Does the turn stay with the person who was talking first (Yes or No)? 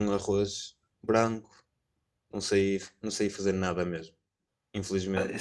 No